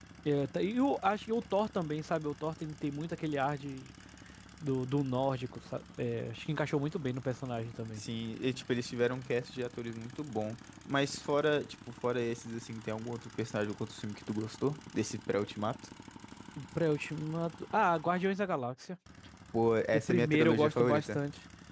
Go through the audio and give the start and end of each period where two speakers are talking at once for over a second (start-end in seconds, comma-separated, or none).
19.9-21.2